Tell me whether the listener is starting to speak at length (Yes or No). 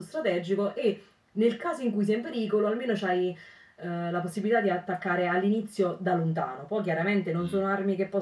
No